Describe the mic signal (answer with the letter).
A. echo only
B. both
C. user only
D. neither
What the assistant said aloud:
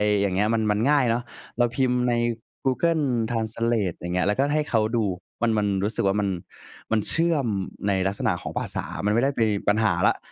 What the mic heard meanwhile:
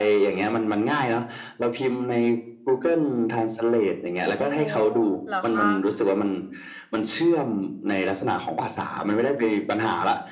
B